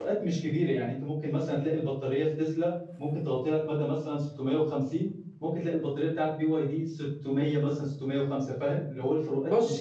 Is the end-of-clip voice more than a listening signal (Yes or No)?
Yes